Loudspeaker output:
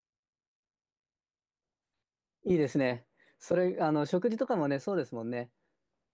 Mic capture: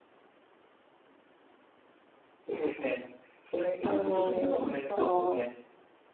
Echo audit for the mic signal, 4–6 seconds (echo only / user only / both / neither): both